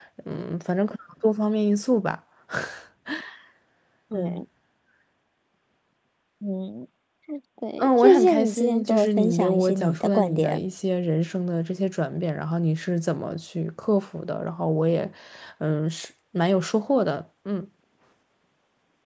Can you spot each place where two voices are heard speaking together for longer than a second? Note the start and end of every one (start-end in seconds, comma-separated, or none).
7.8-10.6